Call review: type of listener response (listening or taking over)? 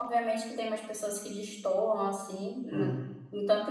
listening